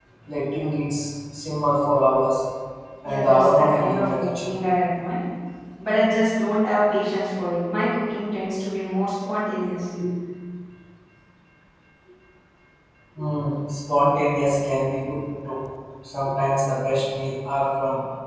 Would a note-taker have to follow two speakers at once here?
Yes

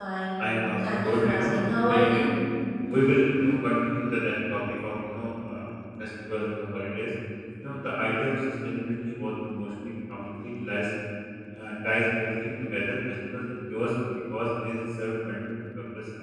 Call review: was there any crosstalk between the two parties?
Yes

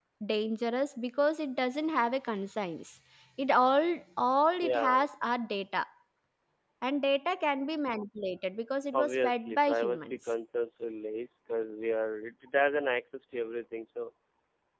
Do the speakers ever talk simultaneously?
Yes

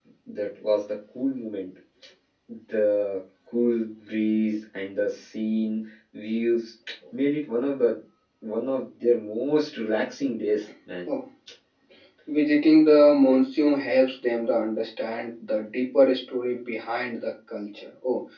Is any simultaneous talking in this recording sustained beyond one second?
No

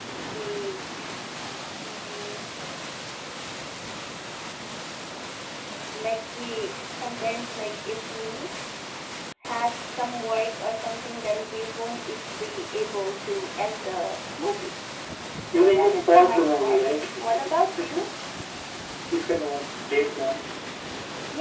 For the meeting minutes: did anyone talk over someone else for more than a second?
Yes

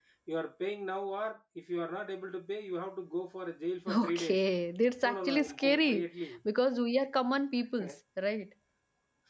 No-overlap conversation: No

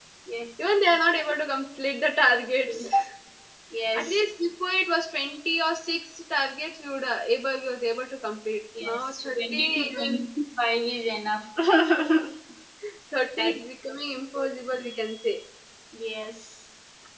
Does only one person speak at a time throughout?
No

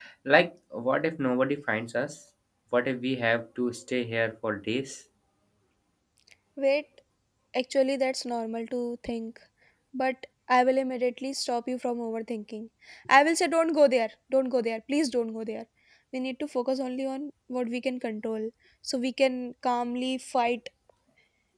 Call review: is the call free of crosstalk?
Yes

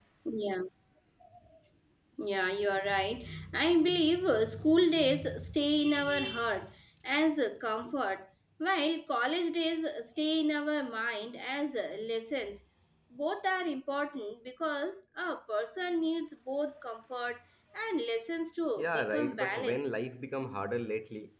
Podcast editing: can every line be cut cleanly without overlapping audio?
No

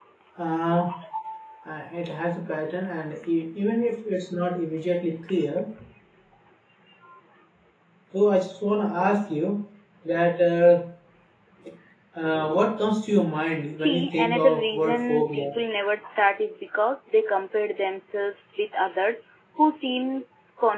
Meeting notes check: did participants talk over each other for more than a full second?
Yes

